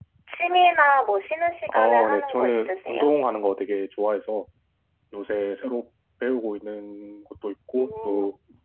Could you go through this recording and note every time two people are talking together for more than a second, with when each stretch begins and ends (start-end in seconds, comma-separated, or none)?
1.7-3.1